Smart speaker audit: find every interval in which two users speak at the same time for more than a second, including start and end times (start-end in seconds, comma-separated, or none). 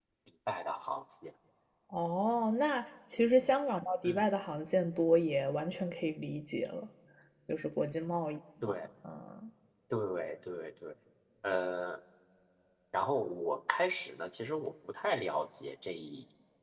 none